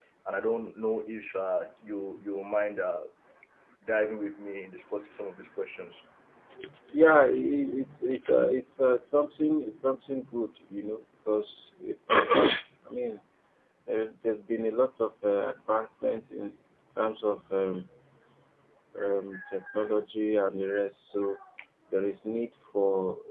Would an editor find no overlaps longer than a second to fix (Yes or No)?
Yes